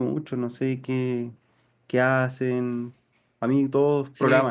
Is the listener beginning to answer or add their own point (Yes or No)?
Yes